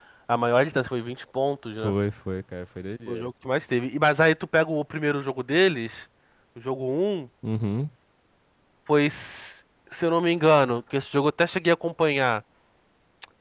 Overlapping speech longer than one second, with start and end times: none

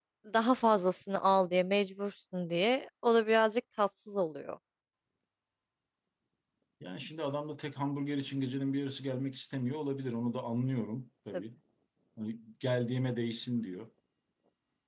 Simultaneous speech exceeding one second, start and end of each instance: none

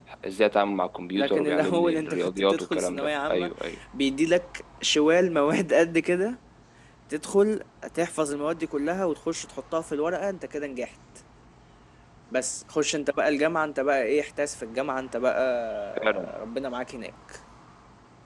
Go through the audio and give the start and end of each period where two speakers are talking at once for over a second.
1.2-3.5

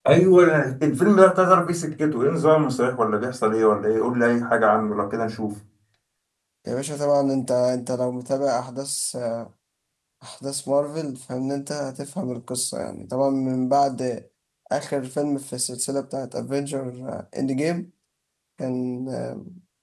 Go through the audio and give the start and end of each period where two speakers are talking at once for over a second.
none

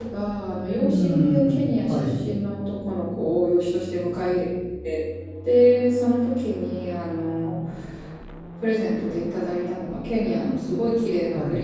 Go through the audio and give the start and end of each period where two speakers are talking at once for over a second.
0.7-2.2

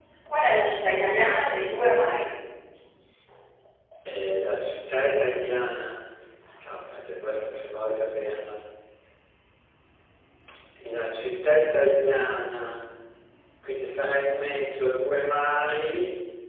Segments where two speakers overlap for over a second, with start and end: none

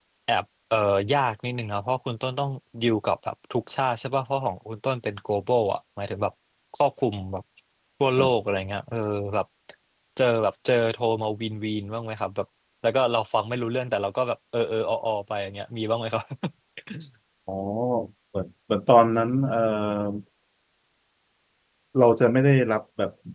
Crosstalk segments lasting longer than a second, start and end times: none

